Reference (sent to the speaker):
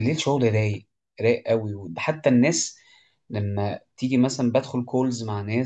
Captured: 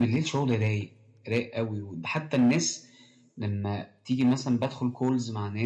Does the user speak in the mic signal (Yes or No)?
No